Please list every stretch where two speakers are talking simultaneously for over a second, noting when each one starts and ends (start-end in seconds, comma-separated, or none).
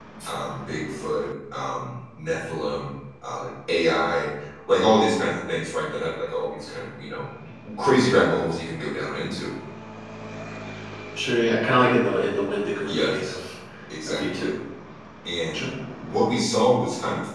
none